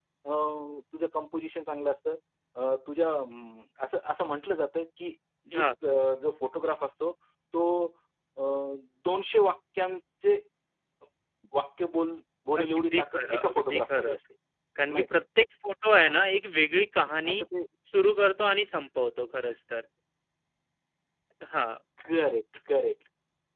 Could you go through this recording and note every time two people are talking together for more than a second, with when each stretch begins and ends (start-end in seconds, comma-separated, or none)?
12.6-14.2